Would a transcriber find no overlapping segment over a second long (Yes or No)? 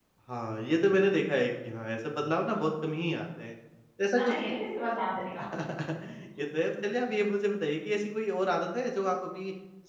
Yes